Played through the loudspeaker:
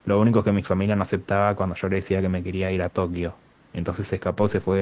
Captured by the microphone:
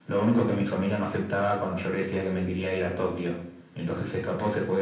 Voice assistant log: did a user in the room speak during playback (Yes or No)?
No